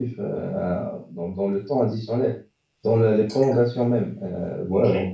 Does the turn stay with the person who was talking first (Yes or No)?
Yes